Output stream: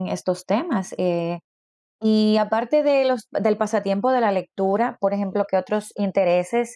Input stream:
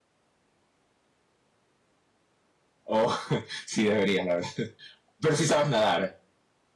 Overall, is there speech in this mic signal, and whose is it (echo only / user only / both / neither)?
user only